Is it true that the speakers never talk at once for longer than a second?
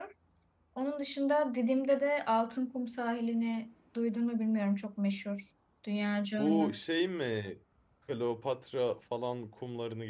Yes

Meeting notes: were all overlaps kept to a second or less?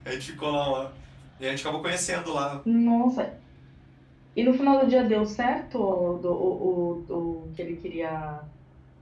Yes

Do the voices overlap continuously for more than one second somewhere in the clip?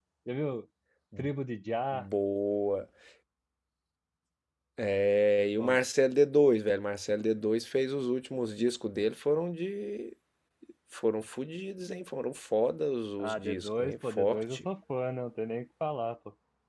Yes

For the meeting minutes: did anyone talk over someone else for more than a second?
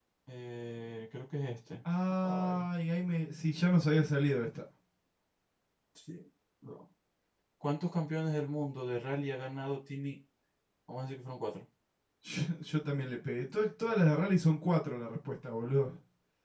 No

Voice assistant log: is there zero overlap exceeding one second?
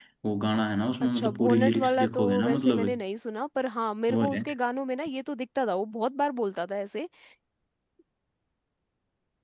No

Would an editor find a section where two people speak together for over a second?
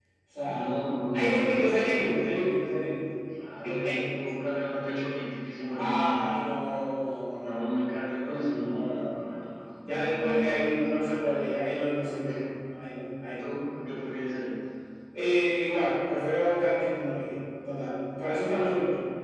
Yes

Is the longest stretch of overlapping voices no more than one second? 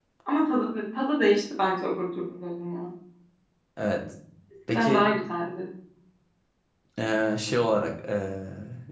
Yes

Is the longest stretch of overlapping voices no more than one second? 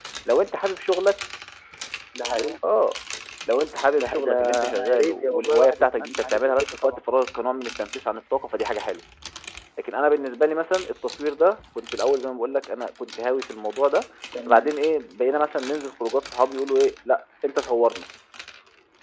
No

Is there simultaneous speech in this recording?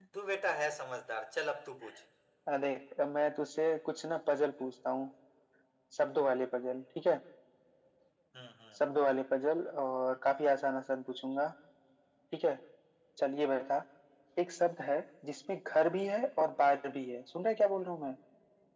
No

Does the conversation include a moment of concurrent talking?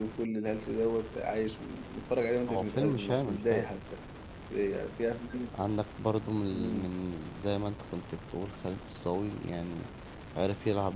Yes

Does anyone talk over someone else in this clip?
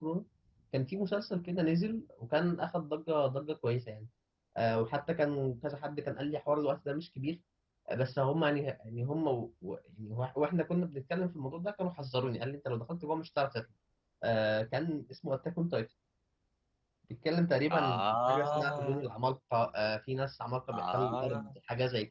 Yes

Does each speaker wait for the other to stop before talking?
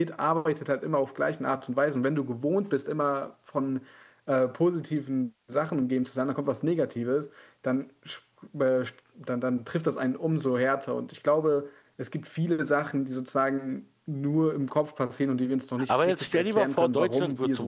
No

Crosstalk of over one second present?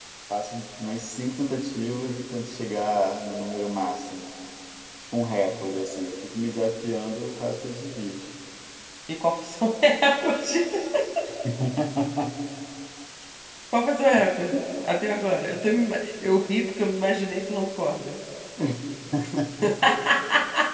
No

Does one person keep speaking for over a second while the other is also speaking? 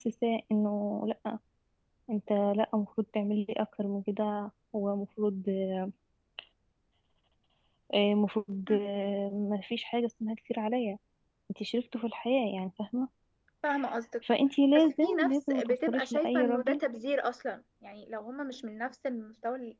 Yes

